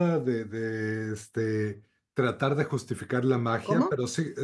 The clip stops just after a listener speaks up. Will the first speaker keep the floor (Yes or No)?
Yes